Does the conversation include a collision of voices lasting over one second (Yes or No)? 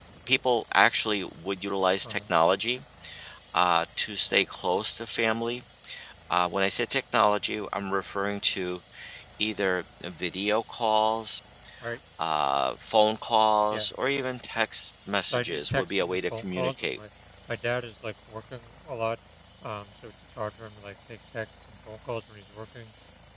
Yes